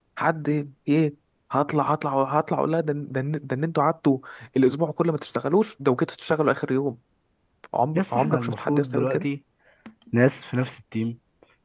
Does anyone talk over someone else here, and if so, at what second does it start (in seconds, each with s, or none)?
8.0 s